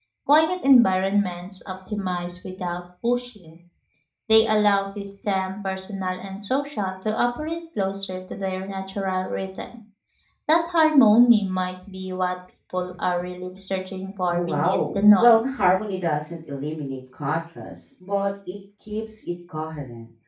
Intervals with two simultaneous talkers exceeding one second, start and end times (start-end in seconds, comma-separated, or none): 14.3-15.5